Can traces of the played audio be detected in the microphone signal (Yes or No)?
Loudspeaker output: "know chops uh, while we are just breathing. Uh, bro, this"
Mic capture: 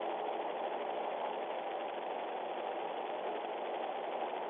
No